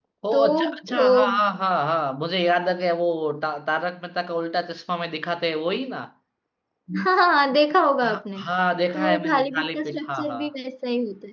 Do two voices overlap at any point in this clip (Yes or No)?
Yes